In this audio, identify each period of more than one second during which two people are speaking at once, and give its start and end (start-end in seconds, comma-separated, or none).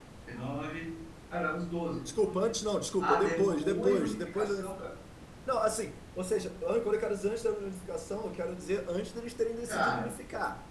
3.0-4.9